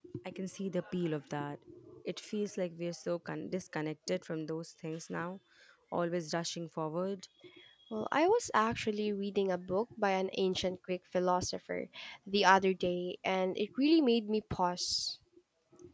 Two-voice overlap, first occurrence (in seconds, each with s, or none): none